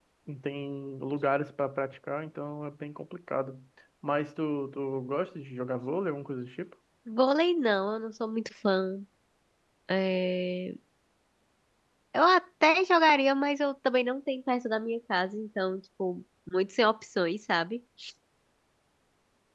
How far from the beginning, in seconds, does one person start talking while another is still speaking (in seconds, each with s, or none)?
none